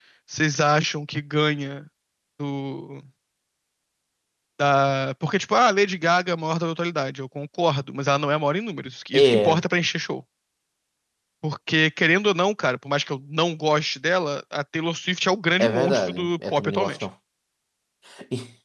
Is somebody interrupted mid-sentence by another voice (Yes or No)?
Yes